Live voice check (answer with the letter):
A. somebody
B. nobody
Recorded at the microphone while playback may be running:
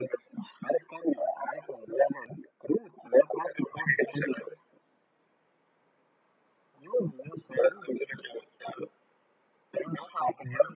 B